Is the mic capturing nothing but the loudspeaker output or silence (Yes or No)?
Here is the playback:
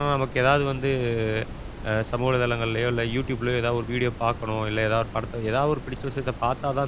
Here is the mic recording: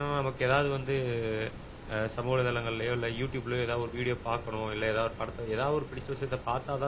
Yes